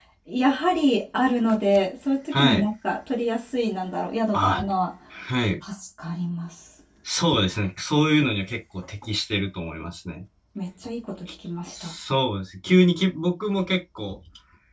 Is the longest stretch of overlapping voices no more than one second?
Yes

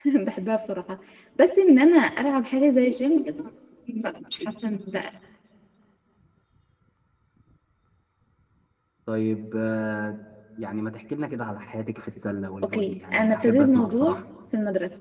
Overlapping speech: Yes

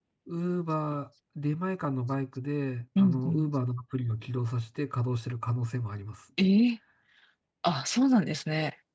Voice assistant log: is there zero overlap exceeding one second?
Yes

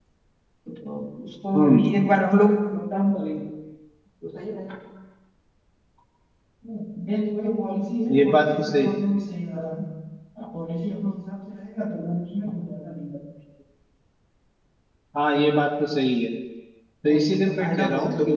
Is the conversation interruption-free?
No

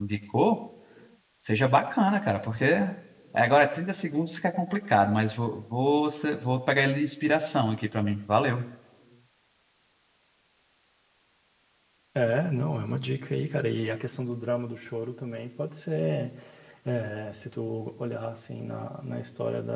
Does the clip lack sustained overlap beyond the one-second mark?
Yes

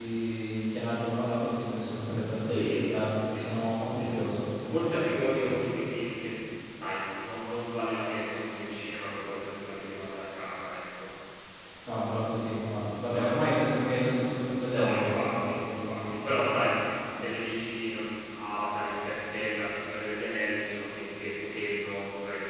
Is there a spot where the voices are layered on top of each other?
Yes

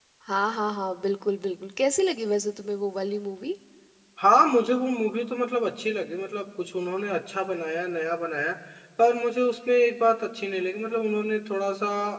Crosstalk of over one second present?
No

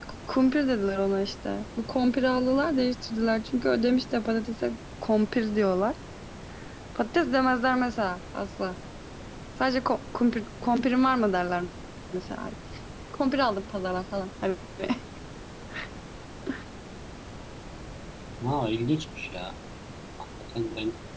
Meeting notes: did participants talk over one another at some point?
No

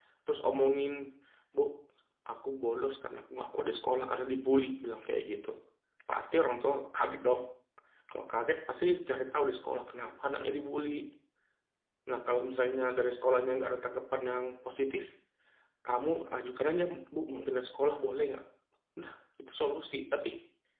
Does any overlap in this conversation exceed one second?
No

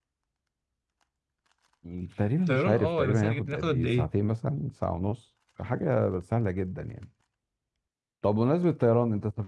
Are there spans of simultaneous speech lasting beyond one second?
Yes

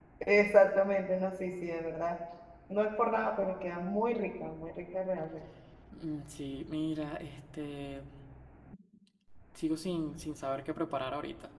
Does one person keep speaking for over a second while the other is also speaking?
No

